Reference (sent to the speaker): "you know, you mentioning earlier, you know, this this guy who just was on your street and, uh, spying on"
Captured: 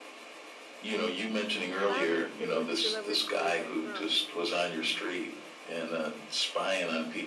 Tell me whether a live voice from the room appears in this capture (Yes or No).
Yes